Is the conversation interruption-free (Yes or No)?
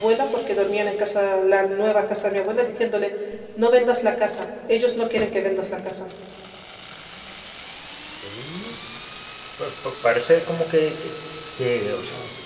Yes